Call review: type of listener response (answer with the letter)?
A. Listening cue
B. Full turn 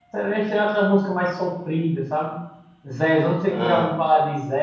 A